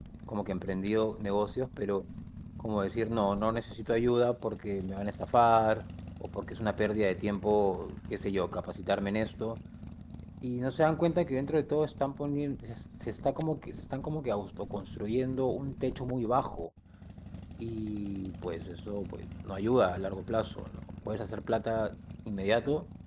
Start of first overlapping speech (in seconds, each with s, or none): none